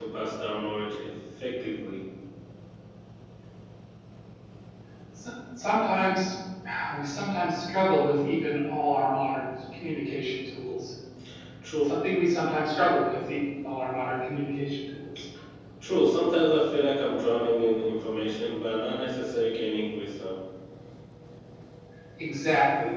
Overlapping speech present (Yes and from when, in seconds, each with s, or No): No